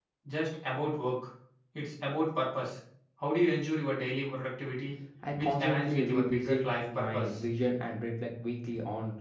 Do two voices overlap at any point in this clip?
Yes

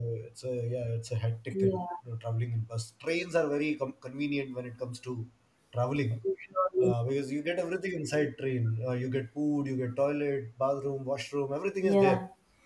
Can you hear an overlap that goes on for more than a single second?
No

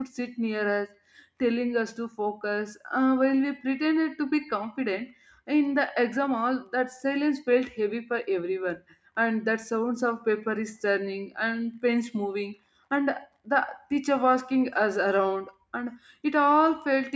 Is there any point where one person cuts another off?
No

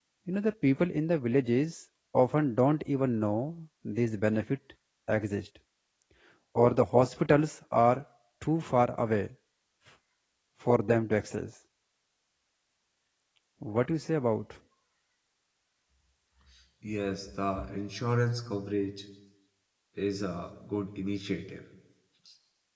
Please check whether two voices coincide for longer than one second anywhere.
No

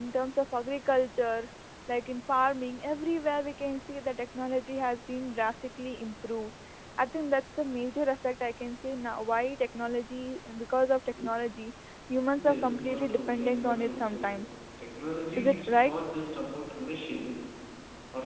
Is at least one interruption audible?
Yes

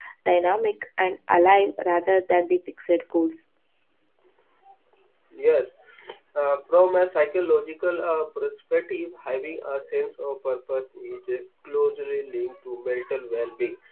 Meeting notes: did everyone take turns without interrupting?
Yes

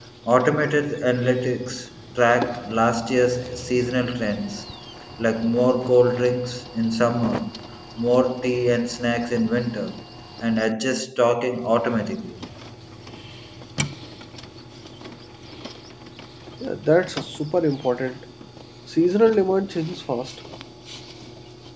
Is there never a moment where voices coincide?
Yes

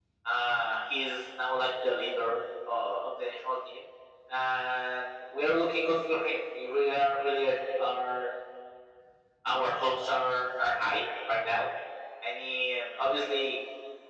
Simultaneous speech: No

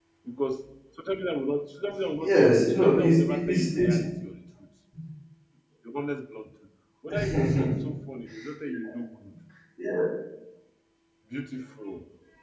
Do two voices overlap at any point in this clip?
Yes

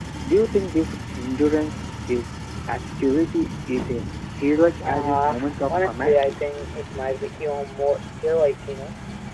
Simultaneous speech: Yes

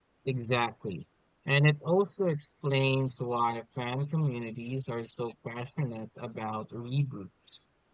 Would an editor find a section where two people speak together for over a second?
No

